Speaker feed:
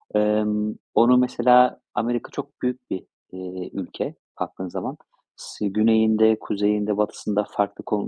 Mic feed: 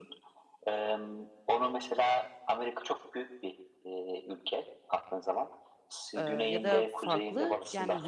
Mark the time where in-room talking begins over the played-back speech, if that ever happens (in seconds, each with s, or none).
6.2 s